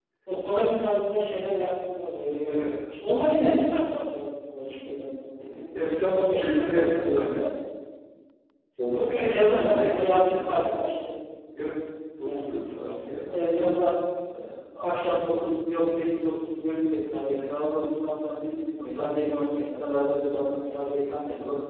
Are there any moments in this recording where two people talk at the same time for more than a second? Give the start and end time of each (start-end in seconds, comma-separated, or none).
6.0-7.4, 9.1-10.7